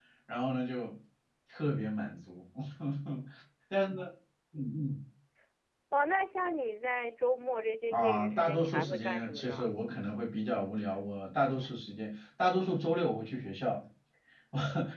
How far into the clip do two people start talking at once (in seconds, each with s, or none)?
7.9 s